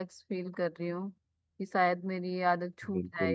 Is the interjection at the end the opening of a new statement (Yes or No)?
Yes